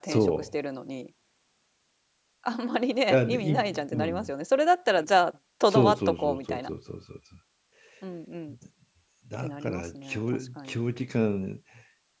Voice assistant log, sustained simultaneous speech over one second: present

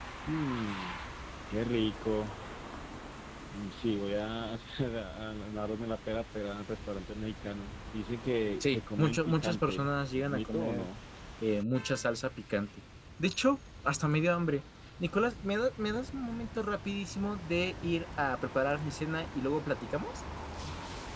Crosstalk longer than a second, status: present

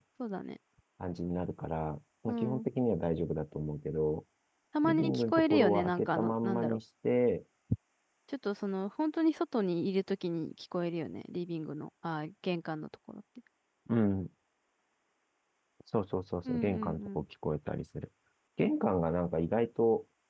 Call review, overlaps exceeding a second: present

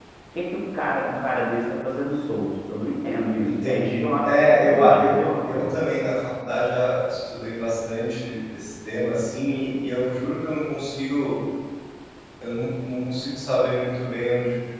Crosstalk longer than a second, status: present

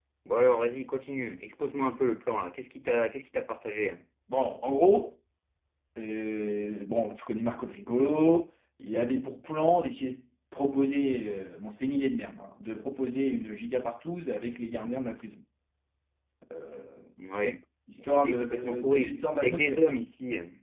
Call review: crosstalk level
present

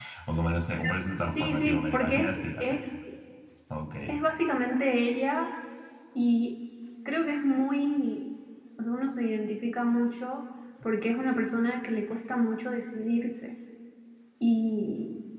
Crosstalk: present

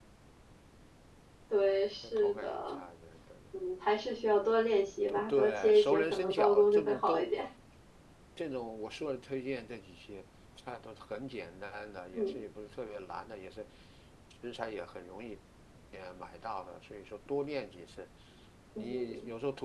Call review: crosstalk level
present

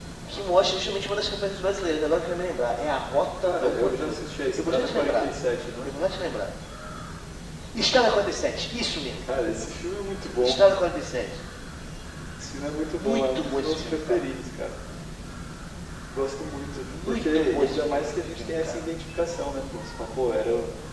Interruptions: present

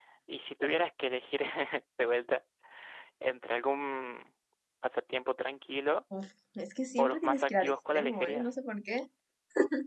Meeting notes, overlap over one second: present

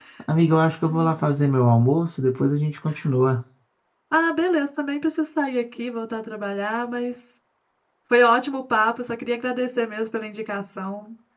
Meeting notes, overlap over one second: none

